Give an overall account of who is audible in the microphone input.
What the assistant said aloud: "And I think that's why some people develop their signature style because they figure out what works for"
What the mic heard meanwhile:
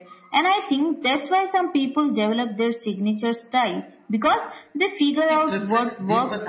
both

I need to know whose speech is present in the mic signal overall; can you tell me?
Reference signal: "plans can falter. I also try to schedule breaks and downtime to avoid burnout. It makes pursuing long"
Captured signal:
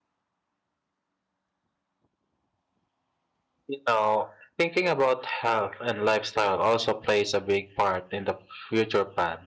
user only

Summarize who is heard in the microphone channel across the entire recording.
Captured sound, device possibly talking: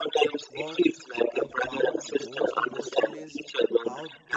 both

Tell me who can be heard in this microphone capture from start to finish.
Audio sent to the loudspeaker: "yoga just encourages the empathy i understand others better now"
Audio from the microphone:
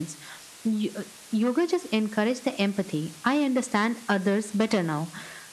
echo only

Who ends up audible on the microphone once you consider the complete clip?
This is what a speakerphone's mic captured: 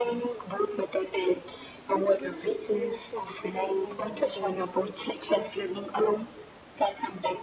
both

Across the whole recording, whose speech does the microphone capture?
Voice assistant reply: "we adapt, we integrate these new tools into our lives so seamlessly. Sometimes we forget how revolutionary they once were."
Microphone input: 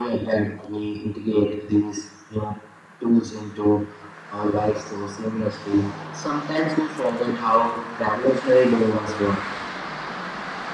echo only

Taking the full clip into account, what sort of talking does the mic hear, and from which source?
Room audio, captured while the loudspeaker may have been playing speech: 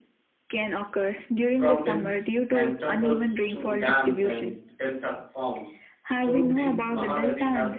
both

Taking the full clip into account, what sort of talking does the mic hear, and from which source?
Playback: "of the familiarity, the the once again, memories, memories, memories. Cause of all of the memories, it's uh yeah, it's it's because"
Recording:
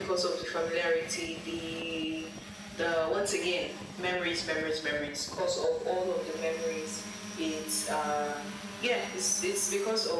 echo only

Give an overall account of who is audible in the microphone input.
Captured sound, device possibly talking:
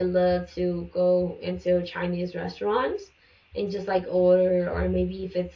user only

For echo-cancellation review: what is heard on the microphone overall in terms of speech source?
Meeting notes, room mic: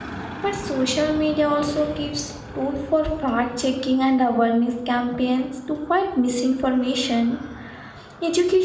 user only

